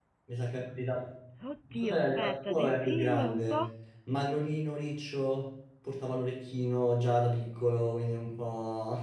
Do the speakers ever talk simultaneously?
Yes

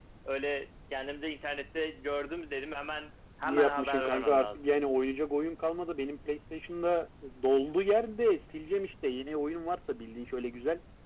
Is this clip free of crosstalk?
No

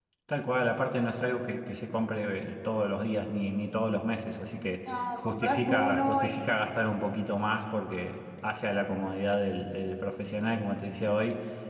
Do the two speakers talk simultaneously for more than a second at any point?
Yes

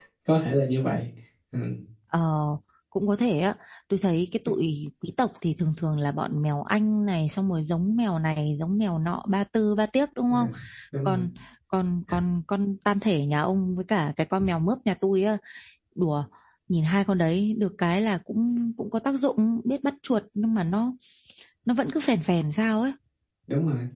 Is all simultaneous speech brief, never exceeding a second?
Yes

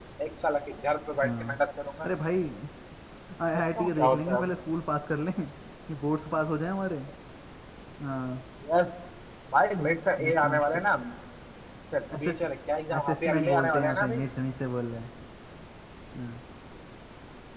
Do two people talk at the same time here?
Yes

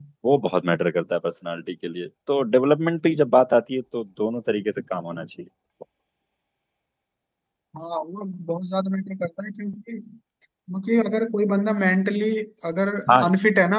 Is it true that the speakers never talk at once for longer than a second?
Yes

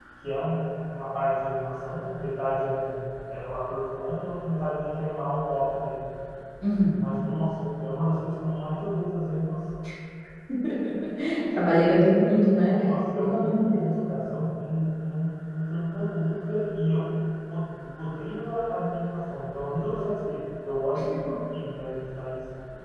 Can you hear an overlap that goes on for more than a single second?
Yes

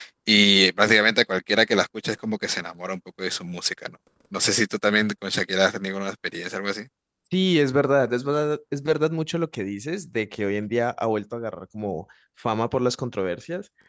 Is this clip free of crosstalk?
Yes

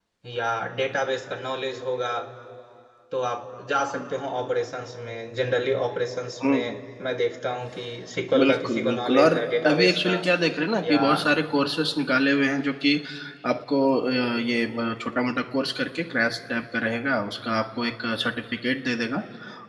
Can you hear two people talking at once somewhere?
Yes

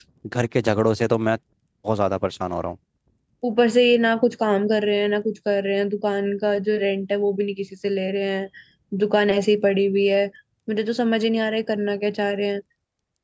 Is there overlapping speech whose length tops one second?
No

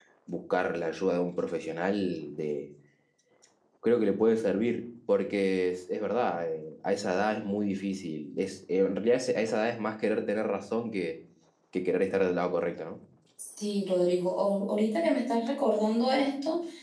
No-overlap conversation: Yes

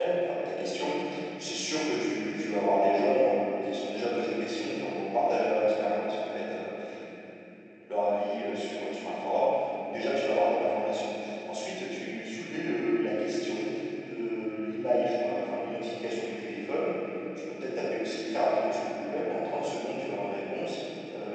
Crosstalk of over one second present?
No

